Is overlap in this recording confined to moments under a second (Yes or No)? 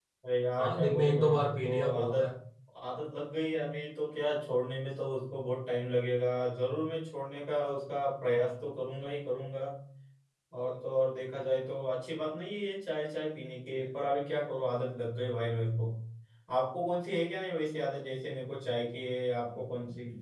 No